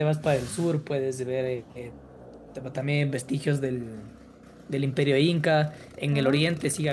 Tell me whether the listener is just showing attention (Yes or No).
Yes